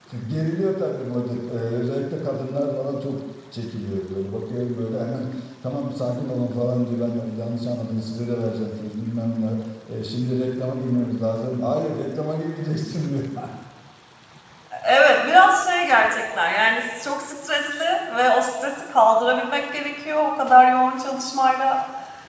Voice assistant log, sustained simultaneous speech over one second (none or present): none